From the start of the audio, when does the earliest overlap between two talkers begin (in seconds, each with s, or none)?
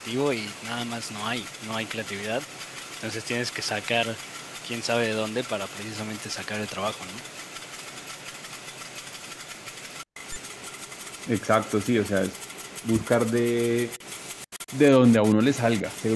none